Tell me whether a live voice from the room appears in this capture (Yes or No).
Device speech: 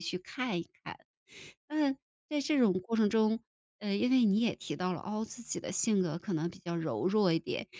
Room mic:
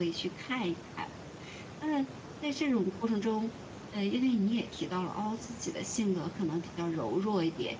No